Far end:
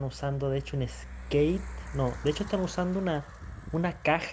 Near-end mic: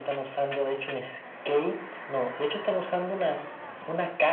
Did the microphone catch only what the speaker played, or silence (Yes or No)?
Yes